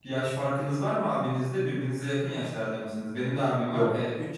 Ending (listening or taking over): listening